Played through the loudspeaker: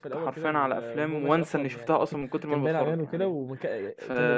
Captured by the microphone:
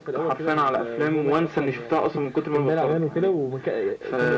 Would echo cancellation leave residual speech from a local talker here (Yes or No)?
No